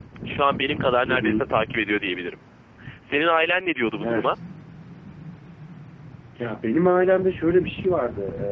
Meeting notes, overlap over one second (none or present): none